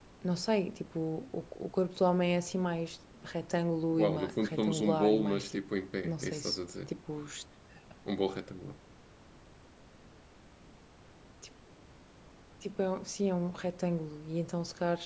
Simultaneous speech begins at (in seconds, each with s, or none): 3.9 s